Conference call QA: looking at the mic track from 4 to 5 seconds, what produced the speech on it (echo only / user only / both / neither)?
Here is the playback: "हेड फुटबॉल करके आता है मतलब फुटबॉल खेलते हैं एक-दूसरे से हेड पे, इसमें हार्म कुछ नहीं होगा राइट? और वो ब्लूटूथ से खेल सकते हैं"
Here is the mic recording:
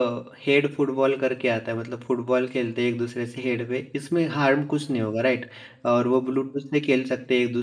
echo only